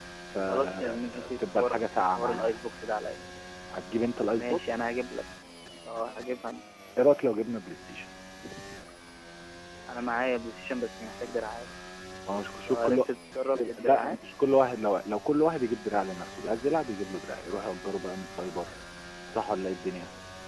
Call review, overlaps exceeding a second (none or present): present